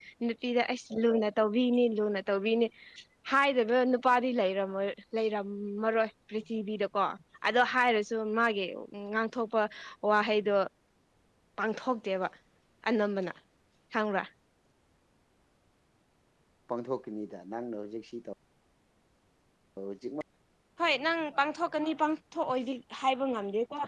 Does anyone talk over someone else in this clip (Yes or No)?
No